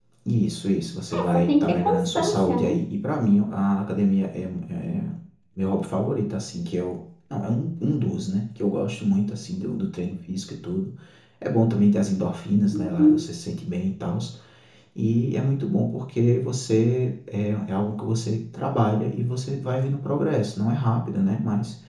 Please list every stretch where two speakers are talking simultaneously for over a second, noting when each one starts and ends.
1.1-2.7

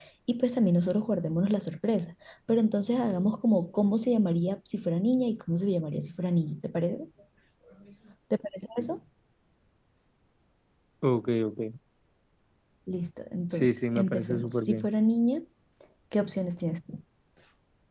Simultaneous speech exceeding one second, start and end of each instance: 13.5-14.9

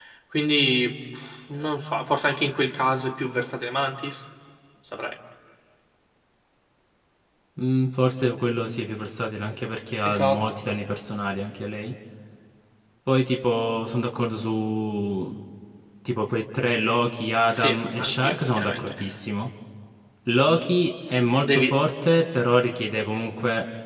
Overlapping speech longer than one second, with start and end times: 17.6-18.9

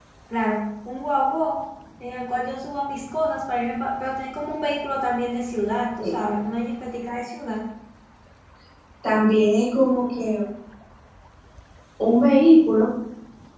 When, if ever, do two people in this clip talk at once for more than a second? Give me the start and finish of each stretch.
none

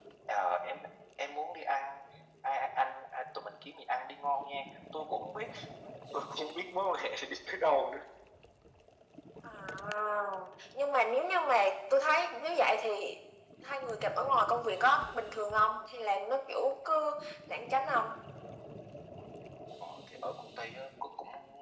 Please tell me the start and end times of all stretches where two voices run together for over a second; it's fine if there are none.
none

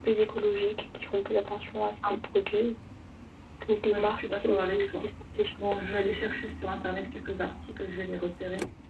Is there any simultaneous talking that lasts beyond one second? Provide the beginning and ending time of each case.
3.9-5.1

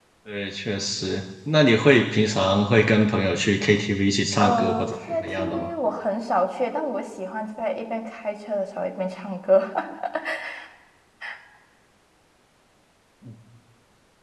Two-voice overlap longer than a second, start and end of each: 4.4-5.7

